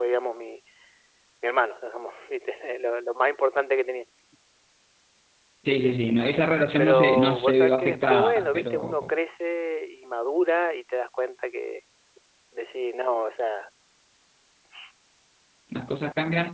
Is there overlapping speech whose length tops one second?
Yes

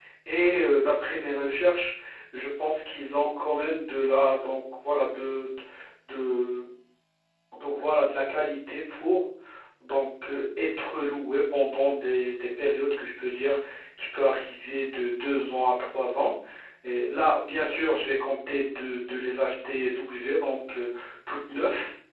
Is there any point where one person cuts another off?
No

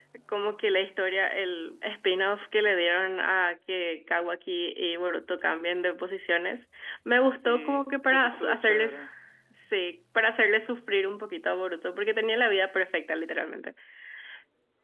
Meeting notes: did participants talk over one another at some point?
Yes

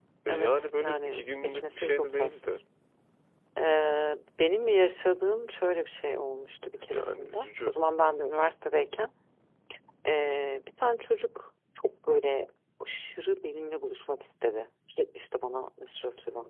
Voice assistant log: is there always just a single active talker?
No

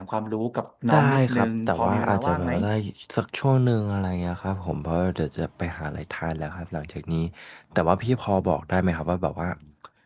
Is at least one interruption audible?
Yes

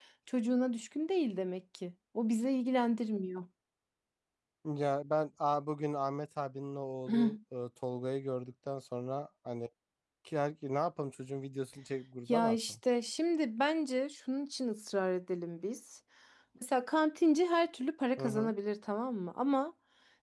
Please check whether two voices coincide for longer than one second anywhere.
No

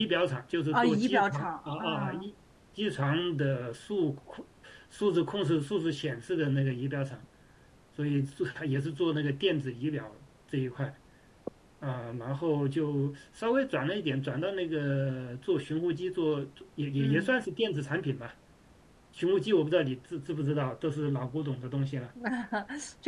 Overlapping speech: Yes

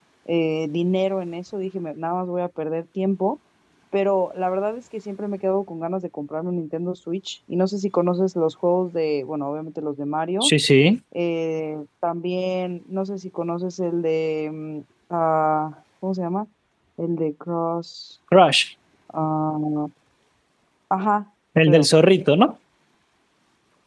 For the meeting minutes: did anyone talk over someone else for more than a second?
No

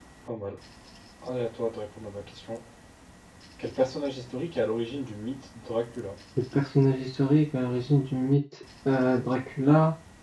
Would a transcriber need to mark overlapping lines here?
No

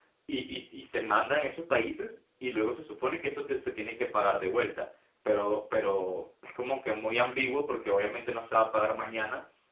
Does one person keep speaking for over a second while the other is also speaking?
No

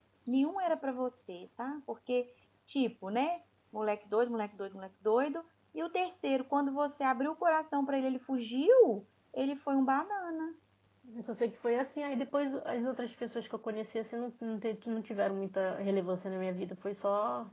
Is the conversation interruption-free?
Yes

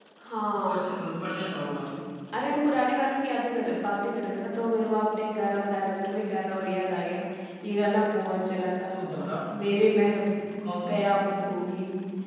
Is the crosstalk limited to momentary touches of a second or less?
Yes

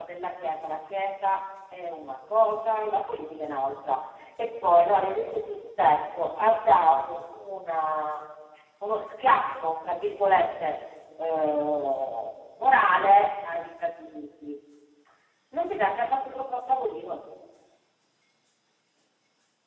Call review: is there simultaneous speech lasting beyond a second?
No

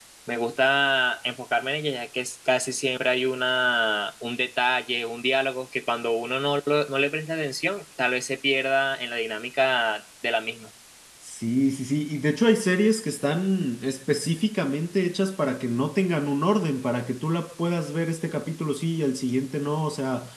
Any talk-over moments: No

